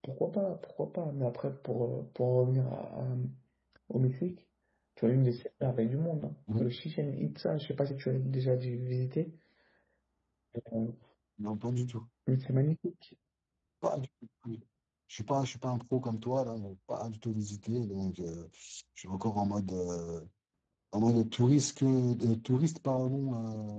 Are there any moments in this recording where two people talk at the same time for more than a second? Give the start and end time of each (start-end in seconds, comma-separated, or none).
none